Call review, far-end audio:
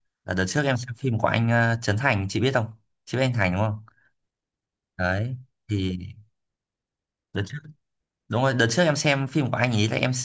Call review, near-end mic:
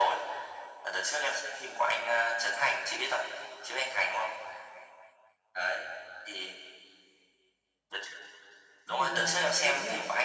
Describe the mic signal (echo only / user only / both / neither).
both